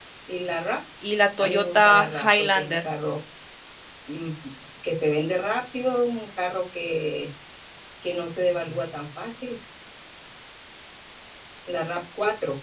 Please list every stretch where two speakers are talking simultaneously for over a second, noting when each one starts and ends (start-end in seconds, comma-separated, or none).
1.4-2.9